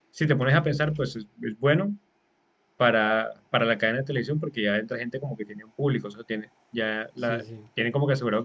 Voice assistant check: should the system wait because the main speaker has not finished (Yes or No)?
Yes